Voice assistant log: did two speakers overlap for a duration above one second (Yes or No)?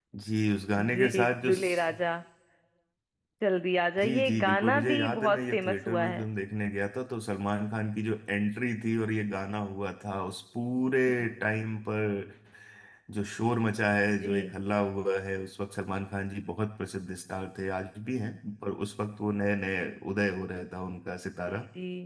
Yes